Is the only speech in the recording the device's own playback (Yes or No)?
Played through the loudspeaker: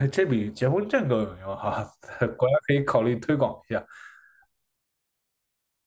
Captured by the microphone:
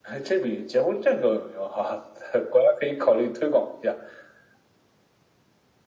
Yes